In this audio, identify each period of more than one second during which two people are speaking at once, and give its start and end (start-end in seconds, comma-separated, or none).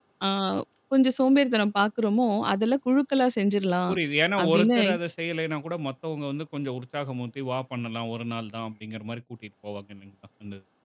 none